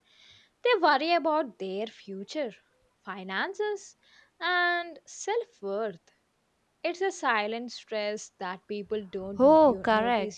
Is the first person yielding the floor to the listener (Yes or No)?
Yes